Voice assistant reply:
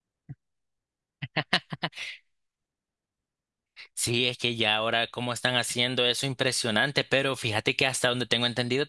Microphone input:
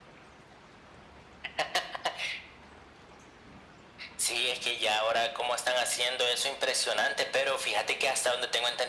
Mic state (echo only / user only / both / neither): echo only